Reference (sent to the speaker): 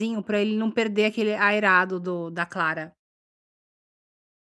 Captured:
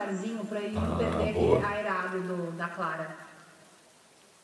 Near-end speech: present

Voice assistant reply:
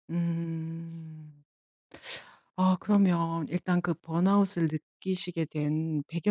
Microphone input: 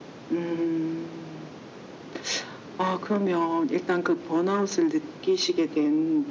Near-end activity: none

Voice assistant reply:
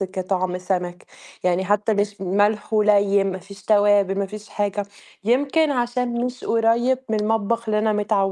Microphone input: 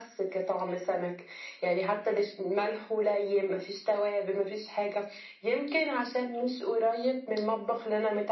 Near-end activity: none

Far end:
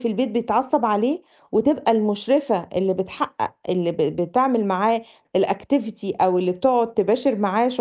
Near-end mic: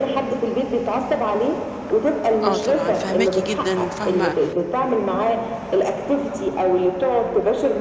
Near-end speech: present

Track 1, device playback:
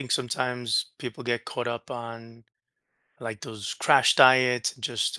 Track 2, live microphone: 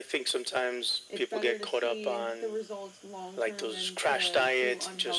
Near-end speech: present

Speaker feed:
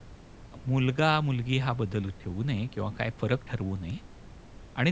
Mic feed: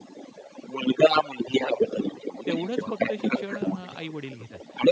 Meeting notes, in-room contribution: present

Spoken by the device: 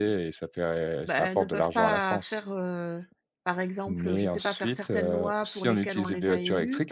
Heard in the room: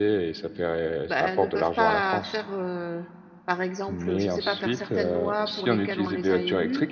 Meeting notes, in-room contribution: none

